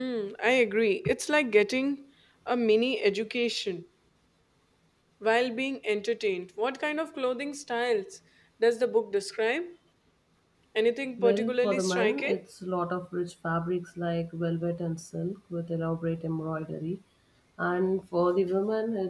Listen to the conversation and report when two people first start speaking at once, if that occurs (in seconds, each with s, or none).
11.2 s